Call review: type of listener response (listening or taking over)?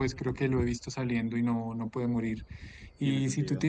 listening